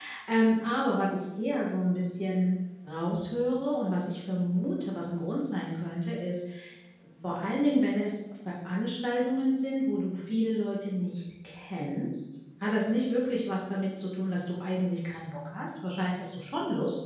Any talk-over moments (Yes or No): No